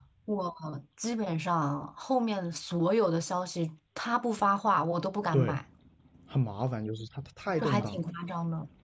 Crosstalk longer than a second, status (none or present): none